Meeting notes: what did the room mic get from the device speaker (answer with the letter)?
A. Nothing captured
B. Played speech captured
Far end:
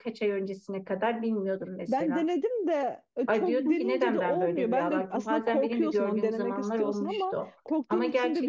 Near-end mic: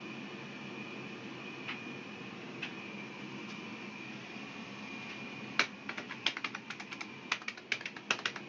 A